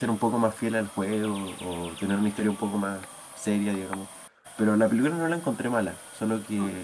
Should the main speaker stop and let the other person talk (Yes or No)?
No